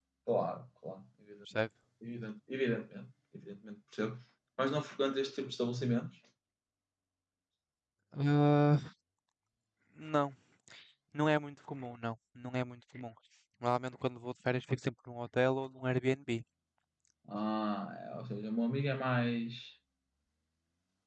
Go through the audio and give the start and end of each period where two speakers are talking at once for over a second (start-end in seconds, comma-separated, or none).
none